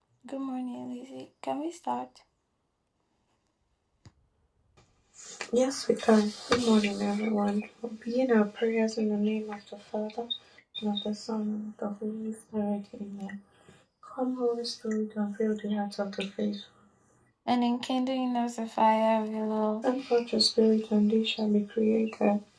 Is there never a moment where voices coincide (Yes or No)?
Yes